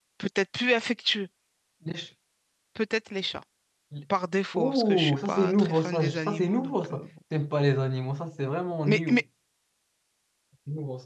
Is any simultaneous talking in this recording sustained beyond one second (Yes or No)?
Yes